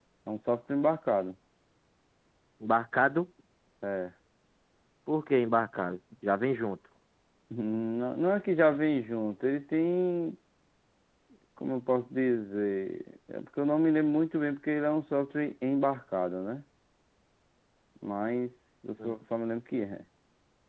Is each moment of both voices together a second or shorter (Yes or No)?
Yes